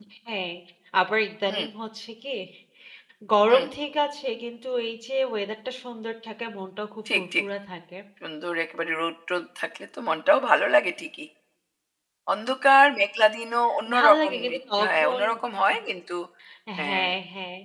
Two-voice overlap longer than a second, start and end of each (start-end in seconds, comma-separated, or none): 14.0-15.2